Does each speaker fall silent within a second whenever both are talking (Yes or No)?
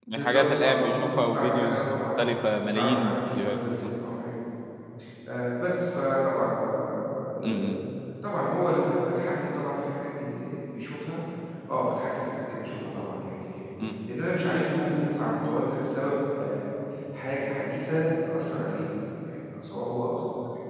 No